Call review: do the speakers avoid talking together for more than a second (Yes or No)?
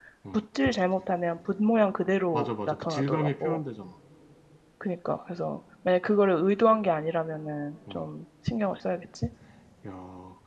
No